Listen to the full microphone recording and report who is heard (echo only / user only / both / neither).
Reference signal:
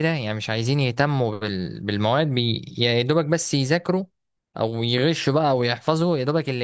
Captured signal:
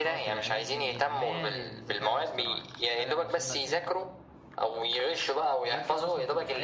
both